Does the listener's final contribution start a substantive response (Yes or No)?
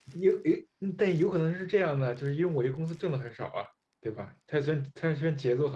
Yes